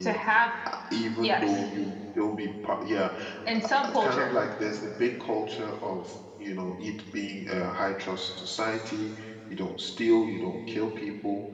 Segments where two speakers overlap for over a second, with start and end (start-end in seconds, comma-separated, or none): none